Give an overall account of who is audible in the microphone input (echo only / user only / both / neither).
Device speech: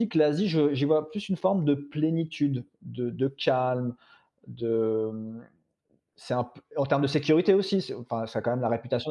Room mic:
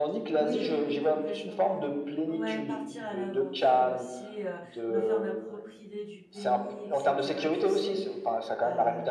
both